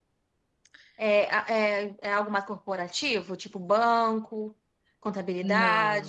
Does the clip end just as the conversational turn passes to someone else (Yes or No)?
Yes